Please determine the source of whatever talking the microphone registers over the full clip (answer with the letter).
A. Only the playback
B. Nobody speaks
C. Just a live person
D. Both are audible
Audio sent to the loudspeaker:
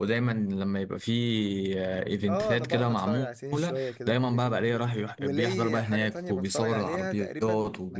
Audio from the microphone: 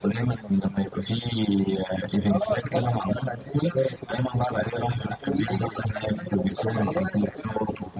A